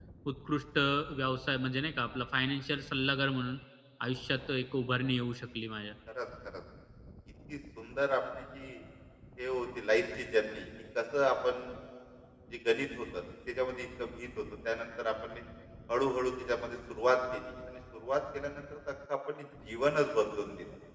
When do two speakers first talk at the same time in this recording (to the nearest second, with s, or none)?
none